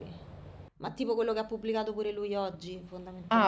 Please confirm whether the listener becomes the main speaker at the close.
Yes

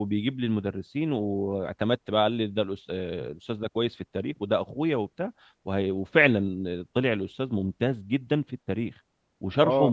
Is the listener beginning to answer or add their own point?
Yes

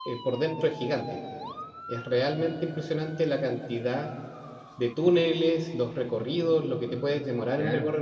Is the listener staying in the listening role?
No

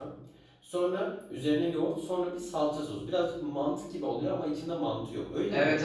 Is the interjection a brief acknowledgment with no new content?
No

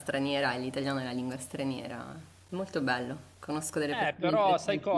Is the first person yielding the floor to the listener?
Yes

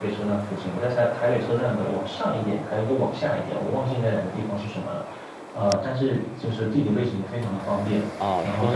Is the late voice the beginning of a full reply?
Yes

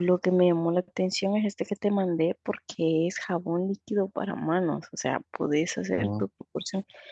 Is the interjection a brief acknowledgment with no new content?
Yes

